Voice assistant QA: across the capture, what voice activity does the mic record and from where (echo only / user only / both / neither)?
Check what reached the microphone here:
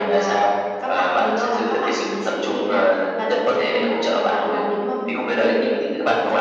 echo only